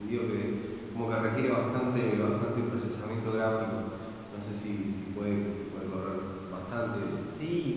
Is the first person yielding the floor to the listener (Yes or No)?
Yes